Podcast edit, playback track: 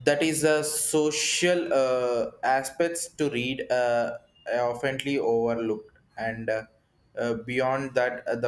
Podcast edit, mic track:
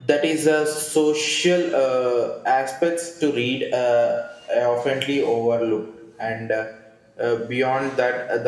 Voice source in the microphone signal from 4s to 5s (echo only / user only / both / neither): echo only